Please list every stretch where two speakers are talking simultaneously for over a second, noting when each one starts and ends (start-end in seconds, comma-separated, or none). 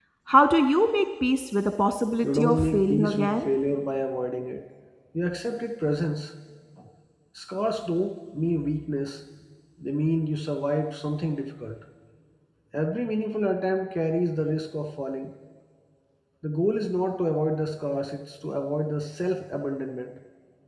2.2-3.5